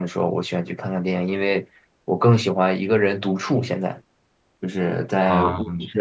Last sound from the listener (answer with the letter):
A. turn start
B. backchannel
B